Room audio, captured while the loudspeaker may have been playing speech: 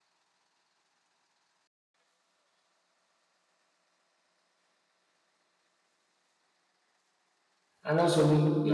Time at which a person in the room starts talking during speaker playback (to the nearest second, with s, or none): 8 s